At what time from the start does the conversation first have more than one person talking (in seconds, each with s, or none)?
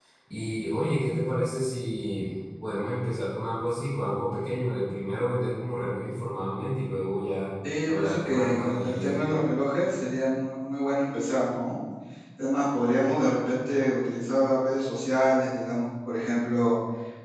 7.9 s